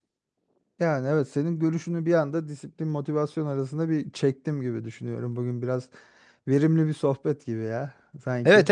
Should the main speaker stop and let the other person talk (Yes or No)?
Yes